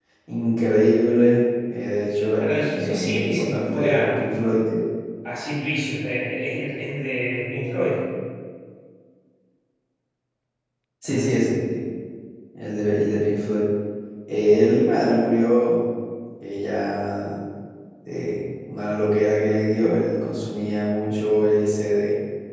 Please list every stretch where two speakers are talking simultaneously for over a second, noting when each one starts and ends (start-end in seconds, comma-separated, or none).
2.4-4.3